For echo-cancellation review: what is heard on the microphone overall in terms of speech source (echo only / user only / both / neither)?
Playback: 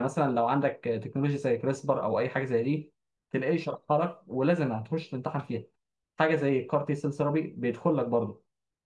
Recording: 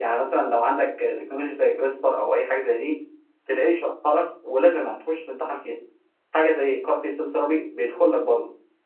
echo only